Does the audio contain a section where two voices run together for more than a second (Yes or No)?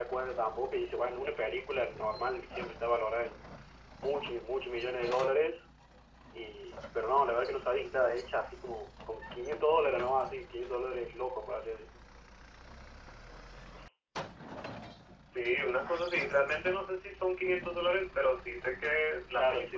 No